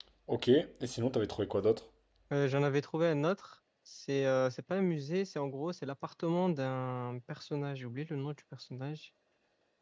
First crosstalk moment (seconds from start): none

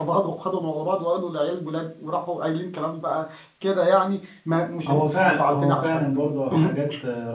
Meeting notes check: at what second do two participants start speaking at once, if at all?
4.9 s

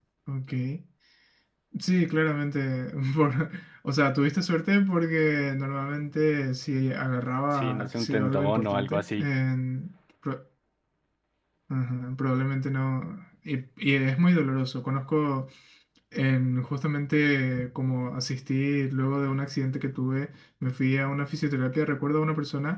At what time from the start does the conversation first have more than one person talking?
7.5 s

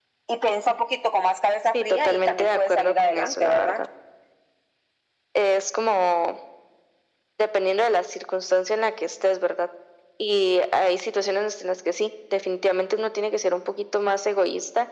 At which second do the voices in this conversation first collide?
1.7 s

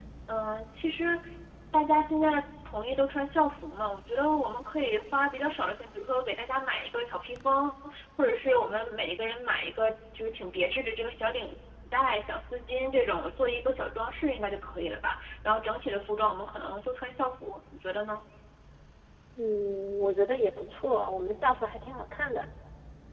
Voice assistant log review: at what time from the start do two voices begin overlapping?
none

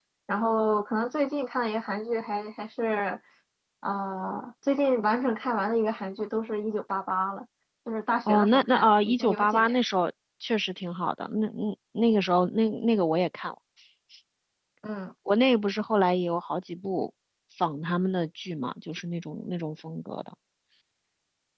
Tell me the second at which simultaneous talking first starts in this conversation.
8.3 s

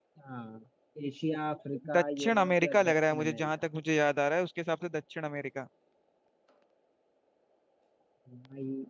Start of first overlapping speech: 2.0 s

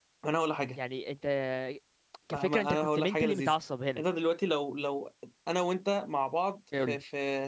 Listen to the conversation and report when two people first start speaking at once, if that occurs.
2.3 s

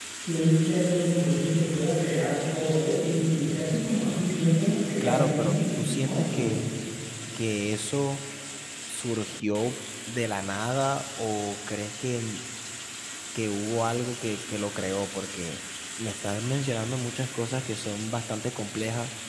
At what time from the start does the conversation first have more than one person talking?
5.0 s

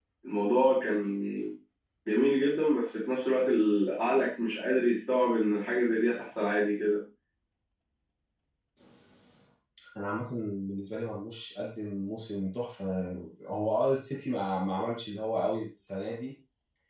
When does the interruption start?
none

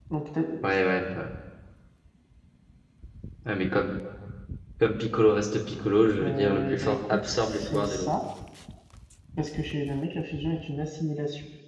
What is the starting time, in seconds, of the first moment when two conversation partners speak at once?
6.2 s

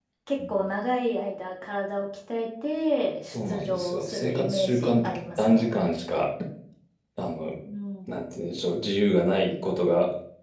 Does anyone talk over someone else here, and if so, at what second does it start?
3.3 s

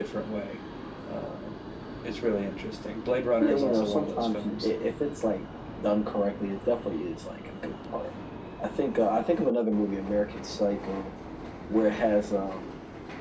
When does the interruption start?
3.4 s

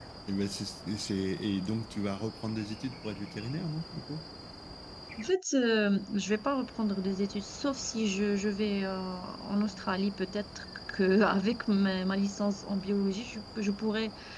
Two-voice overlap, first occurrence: none

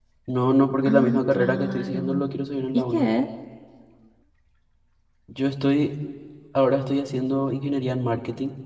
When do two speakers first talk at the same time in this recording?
0.8 s

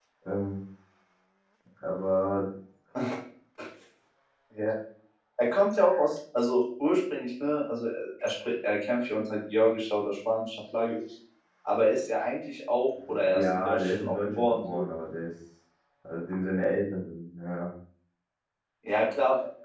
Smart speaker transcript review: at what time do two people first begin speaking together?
13.1 s

